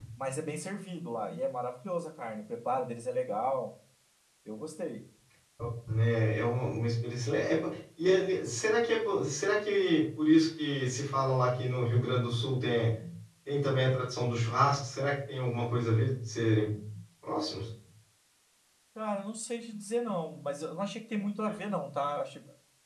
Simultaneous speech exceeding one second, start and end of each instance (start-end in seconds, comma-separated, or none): none